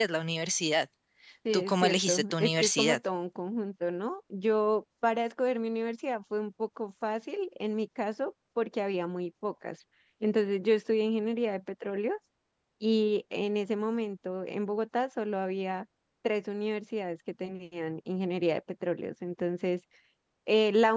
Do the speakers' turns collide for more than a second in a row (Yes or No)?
Yes